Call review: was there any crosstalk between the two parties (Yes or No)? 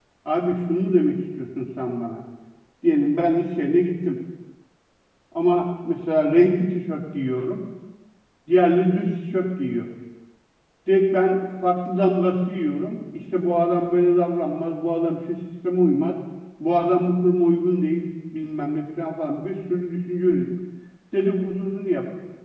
No